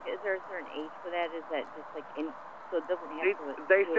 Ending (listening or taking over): taking over